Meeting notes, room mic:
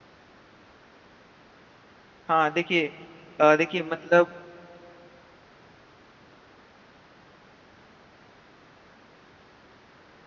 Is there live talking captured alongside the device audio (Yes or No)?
Yes